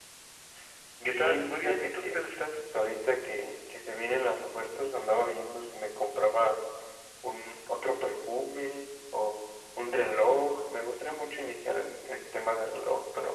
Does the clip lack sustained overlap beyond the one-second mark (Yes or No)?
No